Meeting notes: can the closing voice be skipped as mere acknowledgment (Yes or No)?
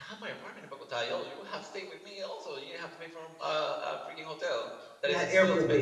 No